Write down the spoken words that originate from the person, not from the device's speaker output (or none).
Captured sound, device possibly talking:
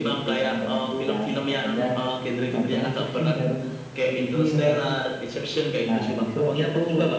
none